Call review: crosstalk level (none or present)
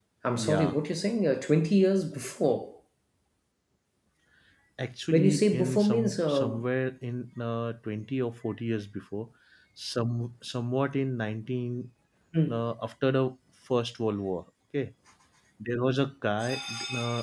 present